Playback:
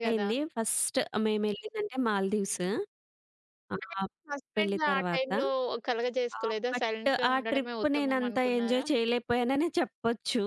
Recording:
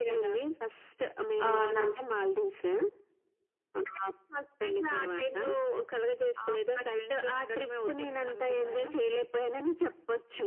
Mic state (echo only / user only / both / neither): both